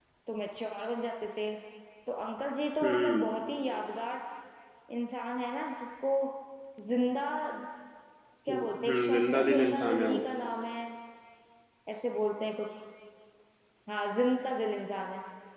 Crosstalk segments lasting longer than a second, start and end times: 8.5-10.2

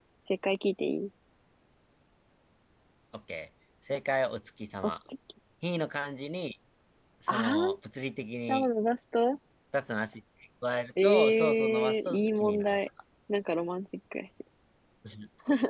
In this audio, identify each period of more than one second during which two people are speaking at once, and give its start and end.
11.0-12.8

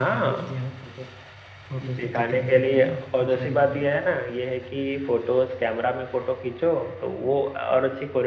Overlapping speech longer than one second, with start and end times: 1.9-3.9

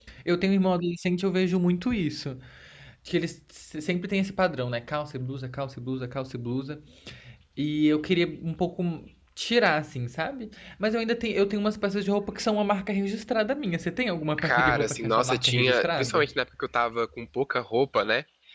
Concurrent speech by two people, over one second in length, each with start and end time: 14.4-16.3

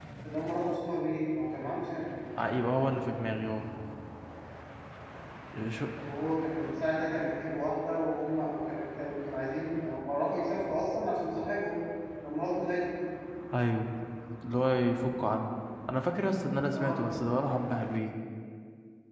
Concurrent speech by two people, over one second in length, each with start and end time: none

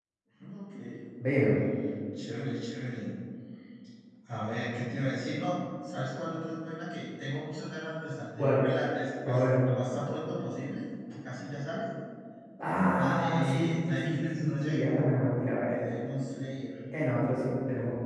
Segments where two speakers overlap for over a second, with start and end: 13.0-14.9

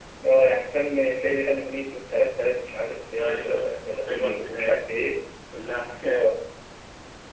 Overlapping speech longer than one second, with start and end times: 3.2-4.8

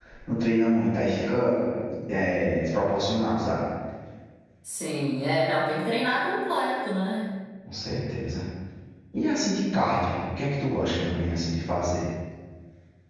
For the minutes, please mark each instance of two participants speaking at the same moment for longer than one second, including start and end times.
none

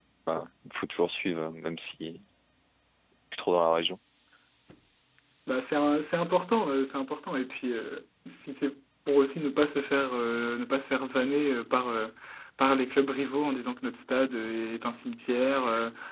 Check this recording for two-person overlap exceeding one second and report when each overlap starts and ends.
none

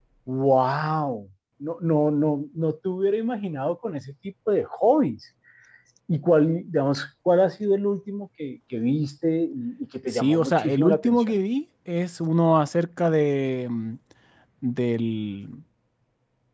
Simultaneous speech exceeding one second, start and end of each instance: 10.1-11.3

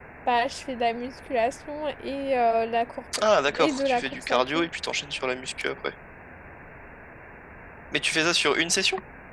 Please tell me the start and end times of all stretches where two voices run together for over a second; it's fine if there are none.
3.5-4.7

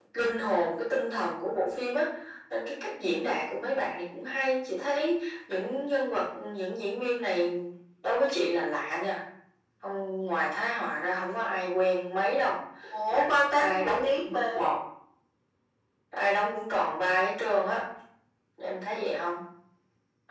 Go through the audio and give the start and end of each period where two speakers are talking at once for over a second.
13.1-14.6

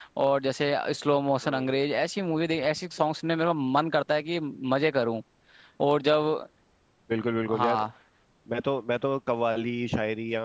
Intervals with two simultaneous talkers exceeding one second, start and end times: none

